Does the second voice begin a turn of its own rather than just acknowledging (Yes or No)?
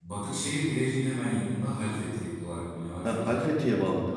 Yes